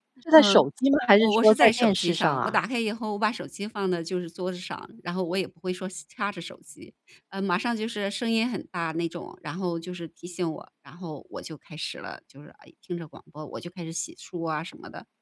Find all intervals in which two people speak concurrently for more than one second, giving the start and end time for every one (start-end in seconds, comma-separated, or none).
1.2-2.6